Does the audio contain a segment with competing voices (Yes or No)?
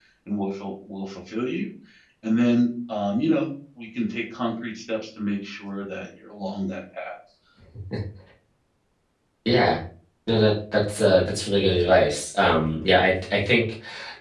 No